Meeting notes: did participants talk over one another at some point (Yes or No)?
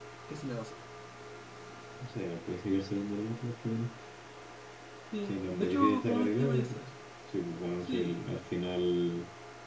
Yes